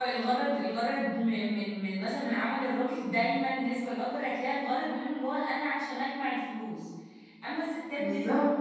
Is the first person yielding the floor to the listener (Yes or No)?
No